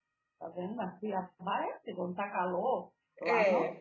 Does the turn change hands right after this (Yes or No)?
No